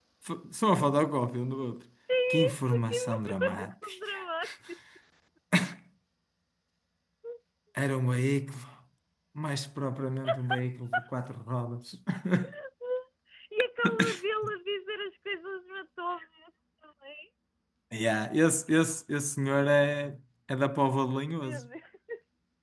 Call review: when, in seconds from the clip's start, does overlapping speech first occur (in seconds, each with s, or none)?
2.5 s